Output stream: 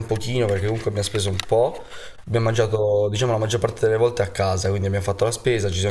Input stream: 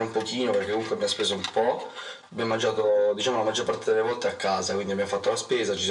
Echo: present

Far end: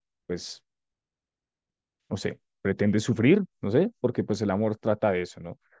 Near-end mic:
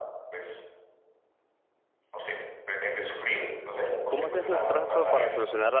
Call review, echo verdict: present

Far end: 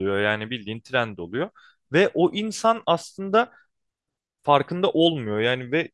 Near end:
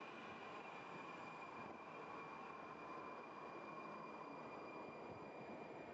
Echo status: none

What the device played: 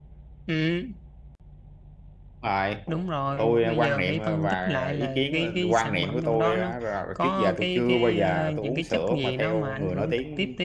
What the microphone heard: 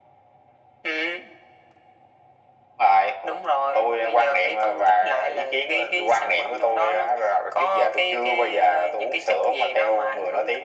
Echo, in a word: present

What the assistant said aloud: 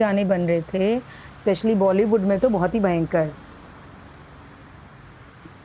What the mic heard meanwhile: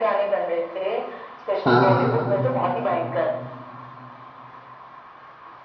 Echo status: present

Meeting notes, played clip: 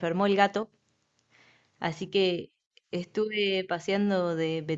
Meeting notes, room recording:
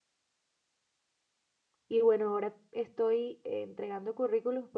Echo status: none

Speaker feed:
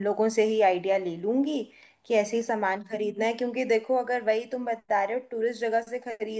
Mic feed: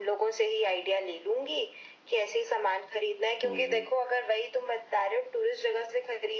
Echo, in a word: present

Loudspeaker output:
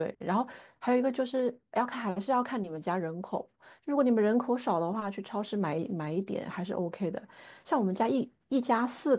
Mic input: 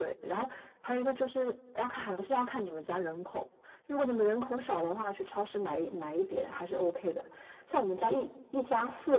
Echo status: present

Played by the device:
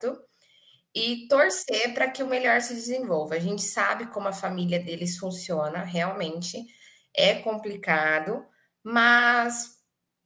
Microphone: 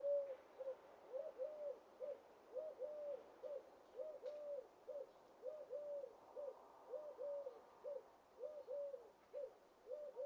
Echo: none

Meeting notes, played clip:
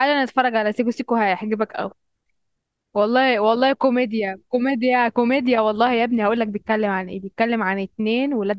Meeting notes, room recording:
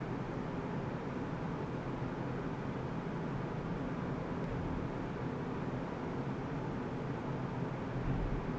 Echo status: none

